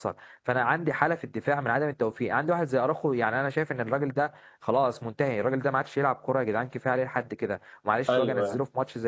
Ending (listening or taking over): listening